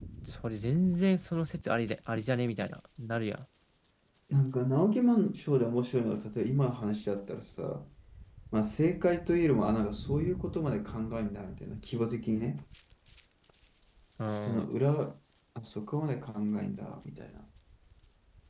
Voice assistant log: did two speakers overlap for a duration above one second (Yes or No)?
No